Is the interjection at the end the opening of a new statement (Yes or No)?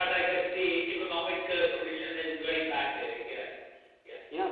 Yes